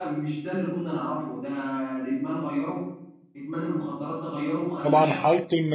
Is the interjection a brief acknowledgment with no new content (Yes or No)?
No